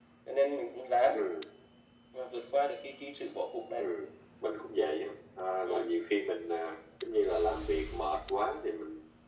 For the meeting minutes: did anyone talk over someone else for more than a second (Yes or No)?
No